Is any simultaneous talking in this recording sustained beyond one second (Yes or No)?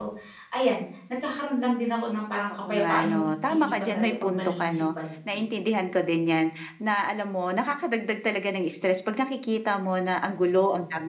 Yes